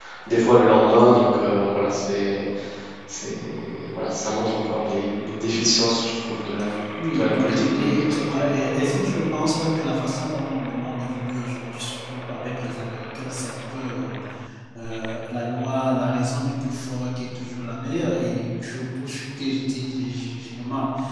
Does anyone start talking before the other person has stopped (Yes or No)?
Yes